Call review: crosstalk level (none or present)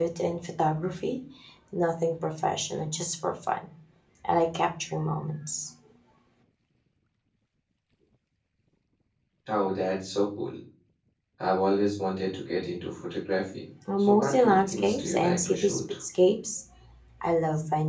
present